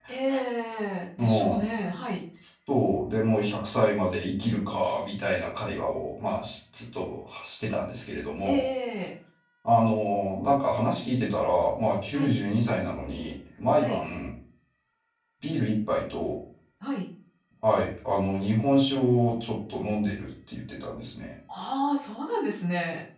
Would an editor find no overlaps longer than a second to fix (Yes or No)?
Yes